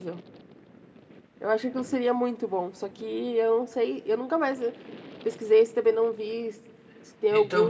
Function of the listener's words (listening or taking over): taking over